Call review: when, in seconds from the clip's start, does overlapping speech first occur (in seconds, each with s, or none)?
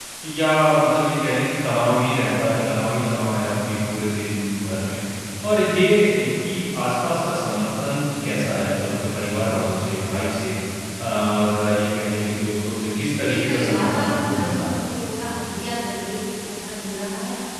13.2 s